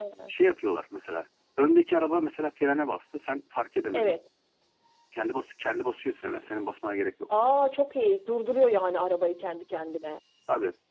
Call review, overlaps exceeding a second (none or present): none